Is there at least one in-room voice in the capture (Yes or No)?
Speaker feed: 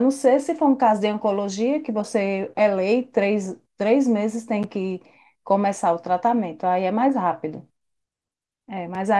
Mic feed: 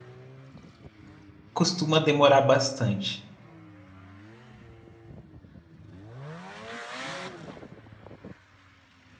Yes